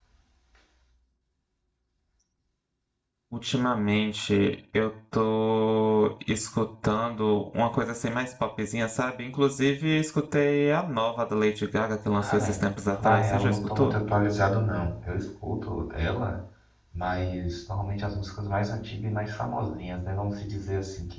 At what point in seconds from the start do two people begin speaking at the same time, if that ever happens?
12.2 s

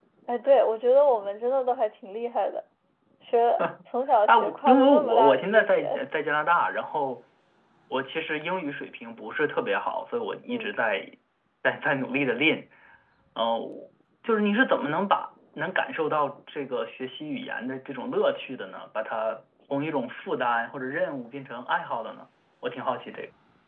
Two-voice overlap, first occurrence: 4.3 s

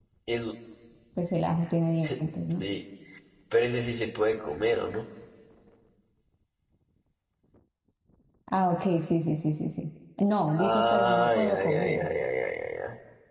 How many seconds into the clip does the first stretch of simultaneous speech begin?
10.6 s

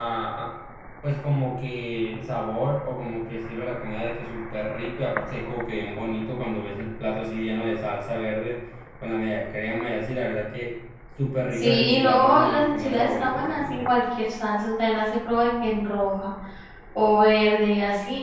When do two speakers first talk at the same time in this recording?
11.5 s

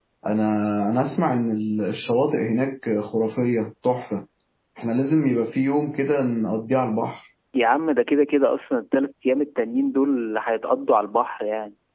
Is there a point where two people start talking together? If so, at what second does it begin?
none

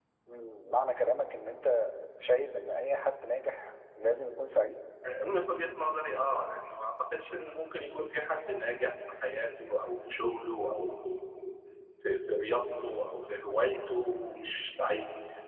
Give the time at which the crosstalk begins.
none

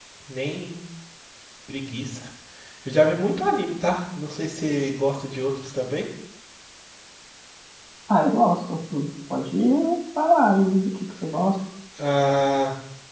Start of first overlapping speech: none

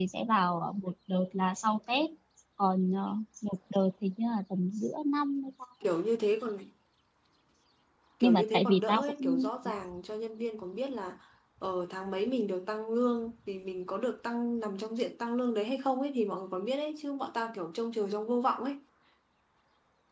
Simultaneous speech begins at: 8.2 s

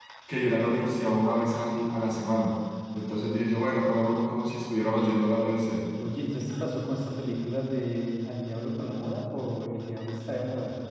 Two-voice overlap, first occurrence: none

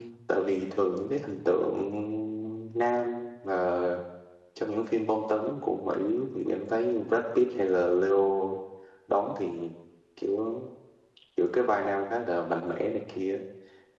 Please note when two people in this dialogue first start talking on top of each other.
none

